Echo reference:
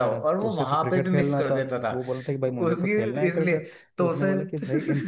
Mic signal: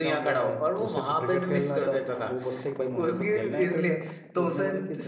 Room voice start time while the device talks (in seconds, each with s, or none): none